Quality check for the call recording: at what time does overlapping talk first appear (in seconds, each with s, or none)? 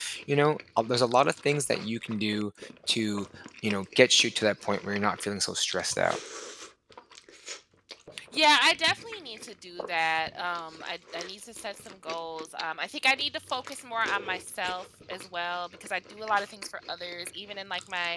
none